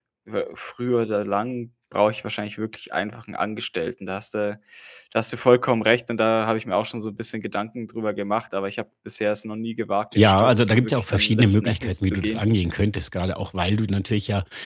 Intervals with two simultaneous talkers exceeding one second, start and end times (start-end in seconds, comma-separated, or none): 10.2-12.4